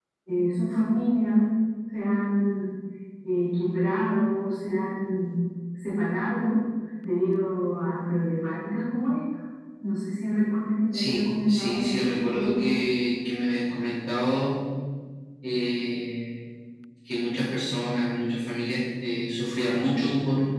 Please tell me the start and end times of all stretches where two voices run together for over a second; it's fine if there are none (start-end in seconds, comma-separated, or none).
10.9-12.8